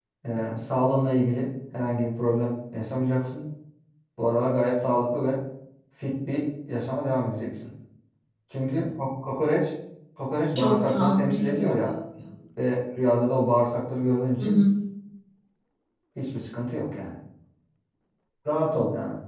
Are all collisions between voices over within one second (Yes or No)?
No